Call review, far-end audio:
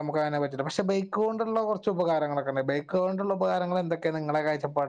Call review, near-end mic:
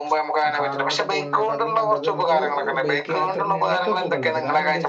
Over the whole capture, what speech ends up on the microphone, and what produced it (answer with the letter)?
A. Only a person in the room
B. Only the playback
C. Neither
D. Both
D